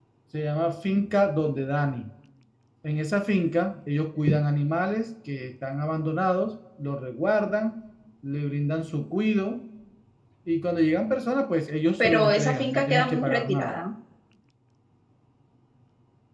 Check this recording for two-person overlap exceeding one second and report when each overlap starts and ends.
12.0-13.7

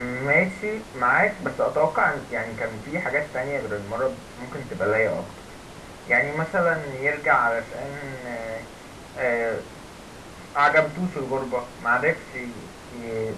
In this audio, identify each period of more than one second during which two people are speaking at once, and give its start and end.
none

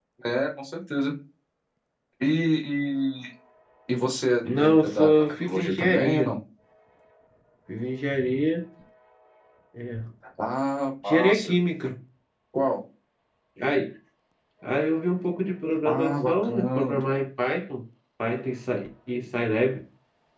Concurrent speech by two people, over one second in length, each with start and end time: 4.6-6.3, 15.8-17.2

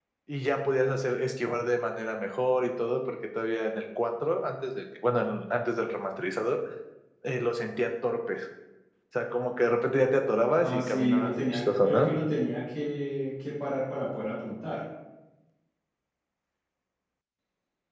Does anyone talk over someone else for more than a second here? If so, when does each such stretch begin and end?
10.6-12.1

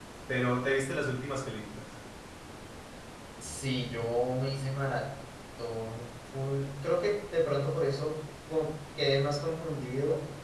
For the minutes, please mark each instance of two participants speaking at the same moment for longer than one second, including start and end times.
none

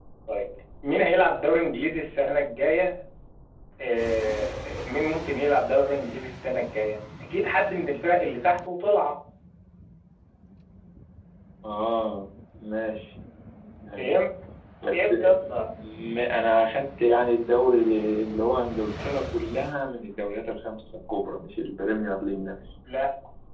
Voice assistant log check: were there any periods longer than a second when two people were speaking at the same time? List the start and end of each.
none

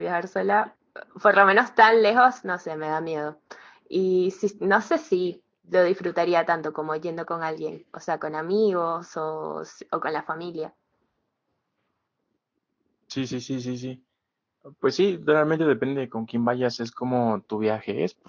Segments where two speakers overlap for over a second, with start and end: none

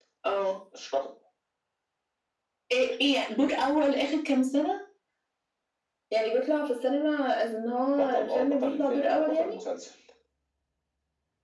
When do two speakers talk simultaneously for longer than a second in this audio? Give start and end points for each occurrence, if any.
7.9-9.6

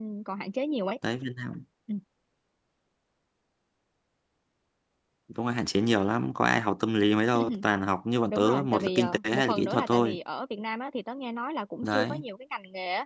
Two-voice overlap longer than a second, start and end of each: 8.3-10.2

